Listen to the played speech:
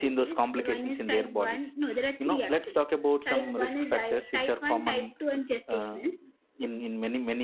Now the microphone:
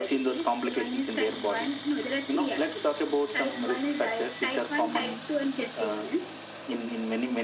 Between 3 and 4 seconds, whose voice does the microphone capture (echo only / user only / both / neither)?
echo only